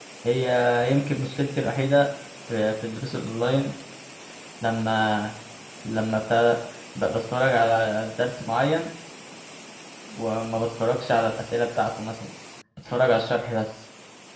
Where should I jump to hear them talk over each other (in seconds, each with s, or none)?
none